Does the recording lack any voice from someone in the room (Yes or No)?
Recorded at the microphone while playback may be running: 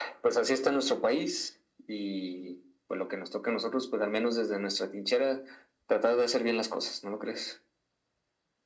Yes